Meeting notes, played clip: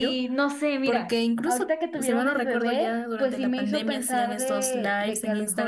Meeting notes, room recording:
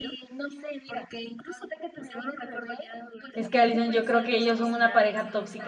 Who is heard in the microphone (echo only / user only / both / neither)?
both